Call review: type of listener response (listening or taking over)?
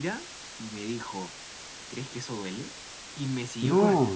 listening